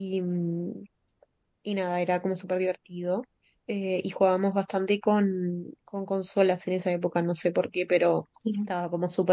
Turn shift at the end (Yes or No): No